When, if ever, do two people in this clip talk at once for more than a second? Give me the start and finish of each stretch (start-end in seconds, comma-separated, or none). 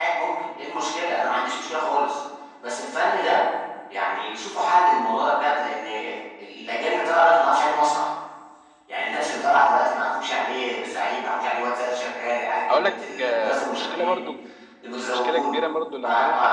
12.7-14.2